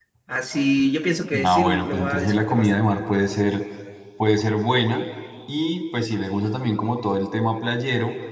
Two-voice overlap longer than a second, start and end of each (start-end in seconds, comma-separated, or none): 1.4-2.8